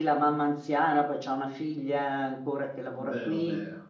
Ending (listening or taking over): listening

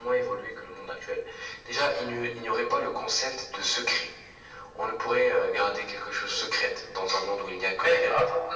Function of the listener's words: taking over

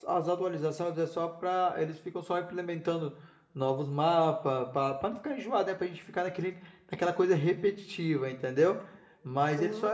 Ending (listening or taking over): listening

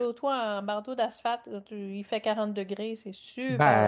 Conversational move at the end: taking over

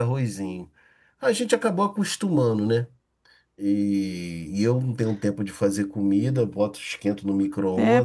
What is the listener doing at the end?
taking over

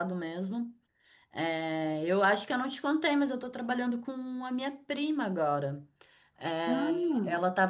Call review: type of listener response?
listening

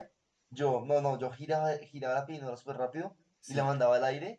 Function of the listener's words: listening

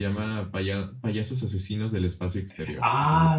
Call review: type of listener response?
taking over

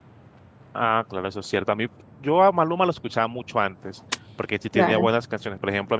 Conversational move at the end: listening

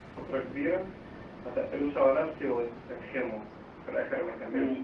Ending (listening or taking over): taking over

